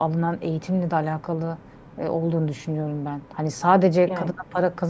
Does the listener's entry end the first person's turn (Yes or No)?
No